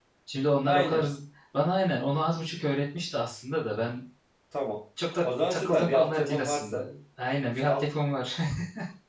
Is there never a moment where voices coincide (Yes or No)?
No